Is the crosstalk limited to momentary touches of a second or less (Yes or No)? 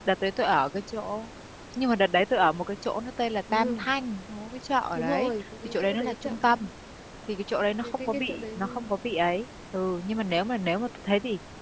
No